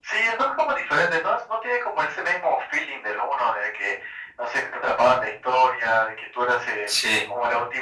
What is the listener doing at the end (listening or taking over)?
listening